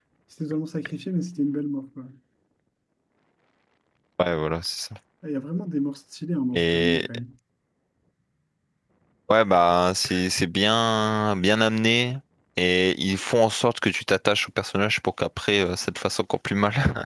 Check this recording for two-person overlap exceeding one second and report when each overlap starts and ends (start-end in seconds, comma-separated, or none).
none